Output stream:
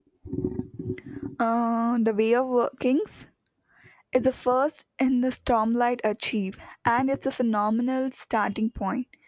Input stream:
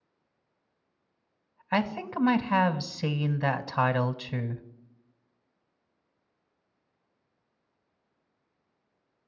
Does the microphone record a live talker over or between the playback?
Yes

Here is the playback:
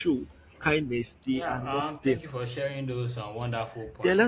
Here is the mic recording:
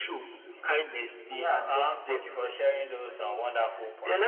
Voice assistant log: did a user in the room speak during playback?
No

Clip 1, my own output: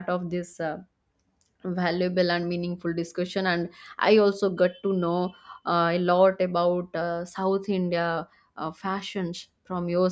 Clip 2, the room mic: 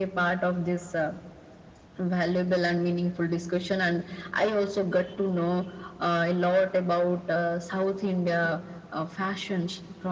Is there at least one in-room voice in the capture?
No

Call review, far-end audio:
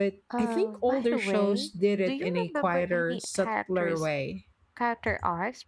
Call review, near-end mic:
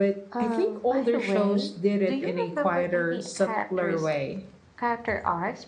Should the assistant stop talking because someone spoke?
No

